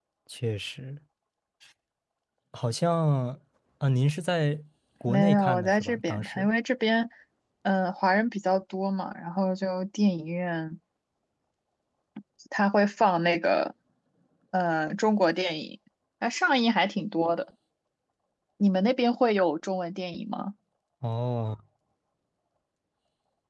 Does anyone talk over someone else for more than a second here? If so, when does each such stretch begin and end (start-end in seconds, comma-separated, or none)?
5.1-6.5